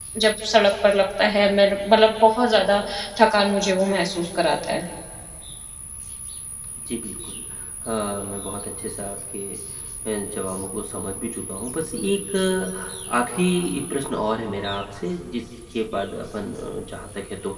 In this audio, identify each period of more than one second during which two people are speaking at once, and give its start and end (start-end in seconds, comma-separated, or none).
none